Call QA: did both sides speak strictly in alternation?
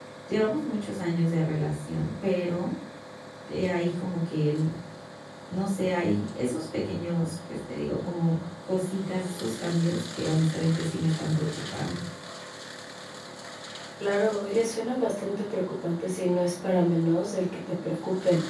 Yes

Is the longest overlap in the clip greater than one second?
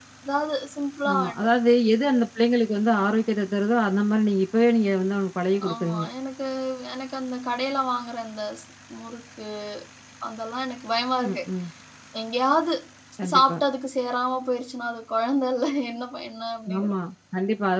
No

